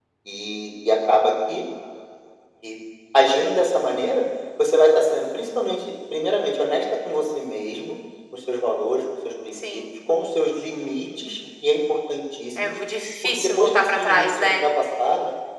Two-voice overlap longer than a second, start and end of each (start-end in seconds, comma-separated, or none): 13.4-14.7